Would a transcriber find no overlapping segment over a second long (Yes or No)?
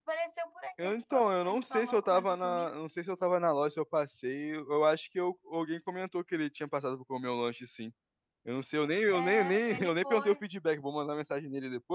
No